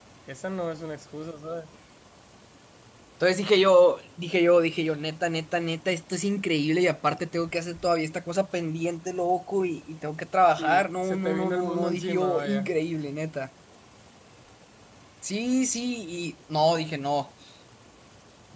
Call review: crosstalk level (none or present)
present